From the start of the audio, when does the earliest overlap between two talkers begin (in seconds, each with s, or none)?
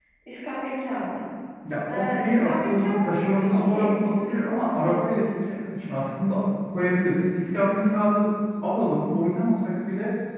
1.9 s